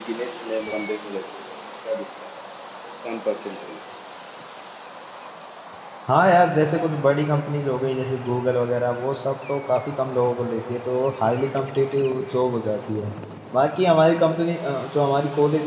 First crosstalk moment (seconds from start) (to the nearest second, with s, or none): none